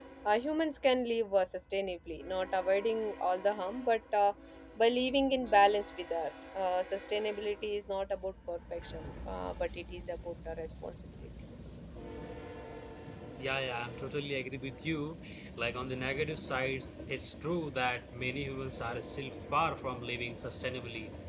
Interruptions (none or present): none